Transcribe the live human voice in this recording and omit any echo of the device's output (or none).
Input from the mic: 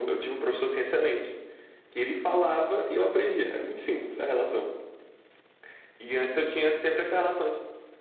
none